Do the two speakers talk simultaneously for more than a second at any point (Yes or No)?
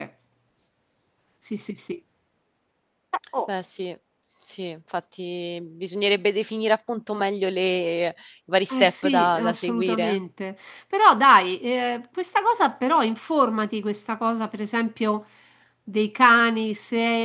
Yes